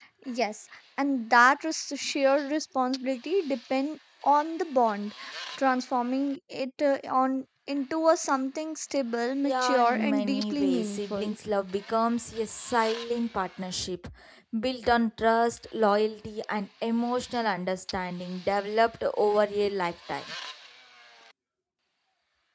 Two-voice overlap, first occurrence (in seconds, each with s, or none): 9.4 s